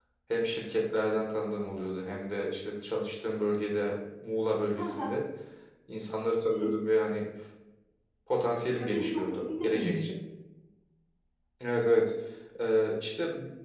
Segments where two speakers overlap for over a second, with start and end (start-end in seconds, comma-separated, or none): 8.8-10.0